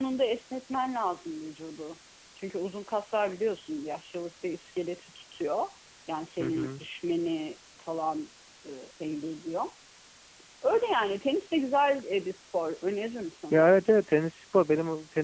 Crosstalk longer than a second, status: none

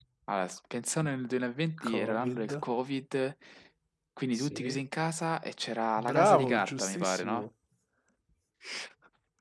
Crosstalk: present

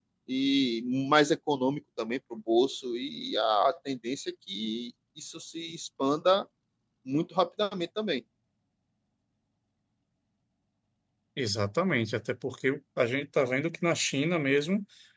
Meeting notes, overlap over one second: none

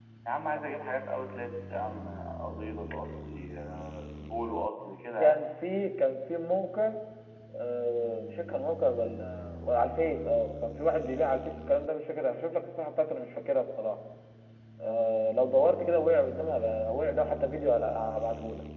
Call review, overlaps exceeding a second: none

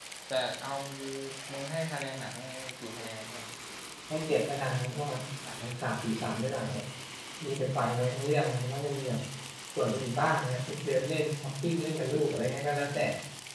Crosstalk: none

